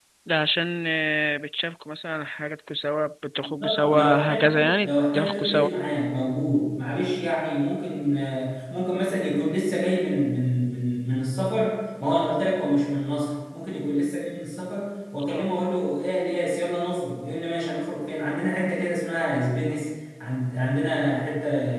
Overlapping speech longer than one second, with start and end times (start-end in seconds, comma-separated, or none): 3.6-5.7